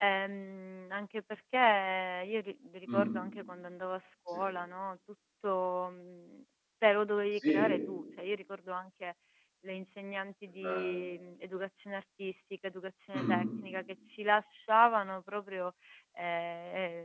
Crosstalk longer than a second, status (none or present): none